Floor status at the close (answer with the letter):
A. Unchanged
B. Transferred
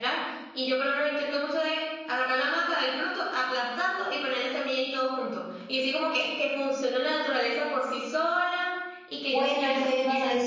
B